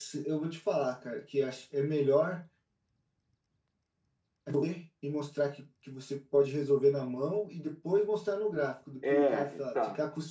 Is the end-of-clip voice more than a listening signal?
No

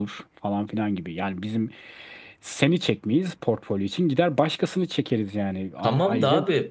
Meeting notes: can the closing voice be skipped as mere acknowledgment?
No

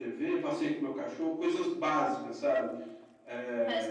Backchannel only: No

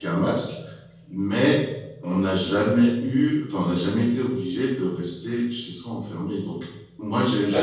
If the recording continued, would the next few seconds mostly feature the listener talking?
No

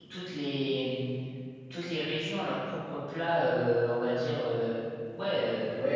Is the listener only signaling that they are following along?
No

